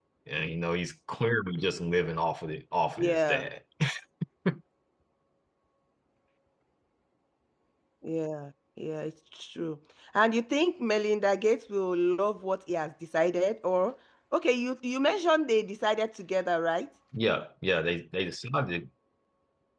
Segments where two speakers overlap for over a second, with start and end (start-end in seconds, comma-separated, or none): none